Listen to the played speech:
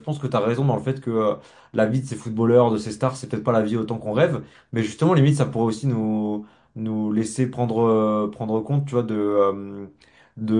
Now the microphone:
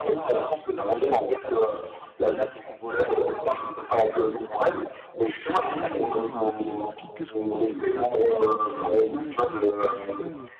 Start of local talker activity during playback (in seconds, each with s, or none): 5.7 s